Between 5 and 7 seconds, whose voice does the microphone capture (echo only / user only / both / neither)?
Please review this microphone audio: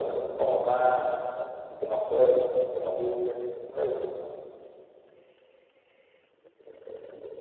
neither